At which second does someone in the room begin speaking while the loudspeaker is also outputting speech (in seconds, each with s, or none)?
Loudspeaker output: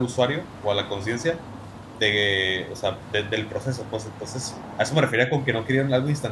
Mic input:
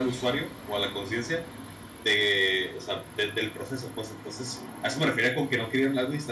none